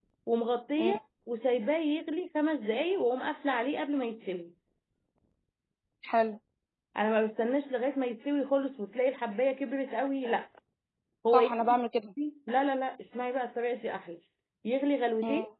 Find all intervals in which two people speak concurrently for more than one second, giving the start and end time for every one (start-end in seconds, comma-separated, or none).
none